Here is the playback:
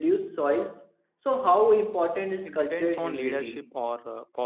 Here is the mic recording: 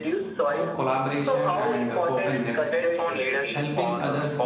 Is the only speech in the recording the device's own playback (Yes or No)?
No